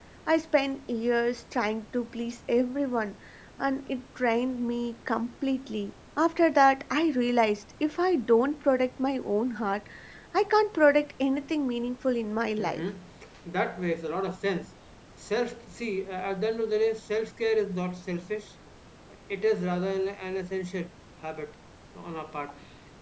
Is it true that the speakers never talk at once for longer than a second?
Yes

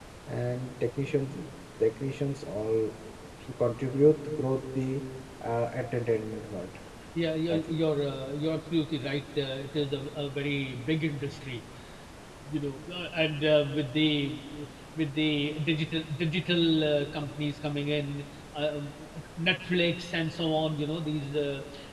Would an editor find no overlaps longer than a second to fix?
Yes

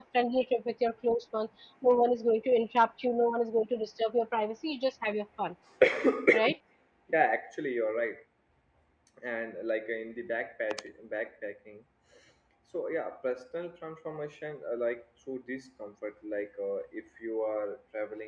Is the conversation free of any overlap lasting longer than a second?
Yes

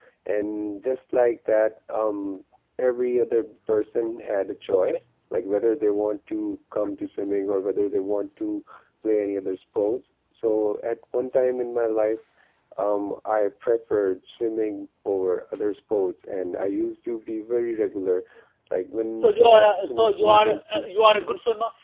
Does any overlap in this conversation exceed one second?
Yes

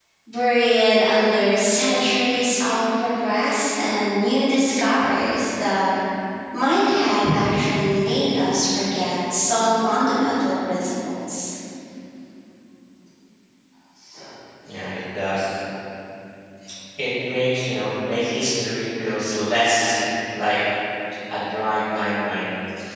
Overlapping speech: No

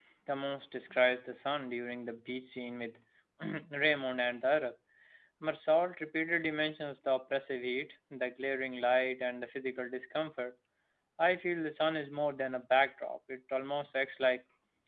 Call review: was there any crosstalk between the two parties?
No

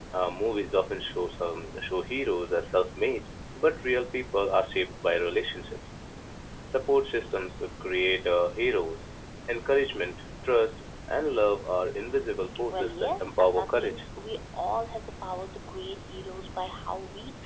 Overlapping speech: Yes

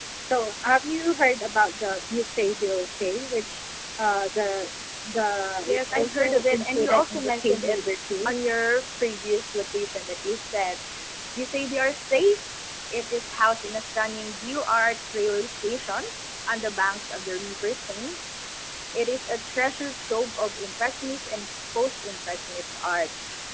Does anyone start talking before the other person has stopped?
Yes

